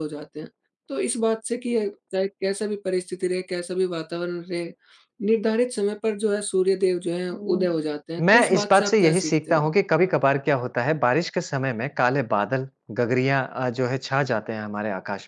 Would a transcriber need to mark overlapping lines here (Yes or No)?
Yes